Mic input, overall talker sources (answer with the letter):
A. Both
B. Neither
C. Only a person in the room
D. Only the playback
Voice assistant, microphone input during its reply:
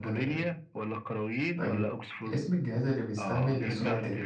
A